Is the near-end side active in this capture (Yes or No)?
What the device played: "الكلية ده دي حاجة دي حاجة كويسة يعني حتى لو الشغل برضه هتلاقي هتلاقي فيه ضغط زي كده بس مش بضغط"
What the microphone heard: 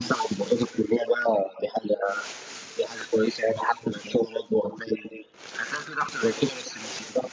No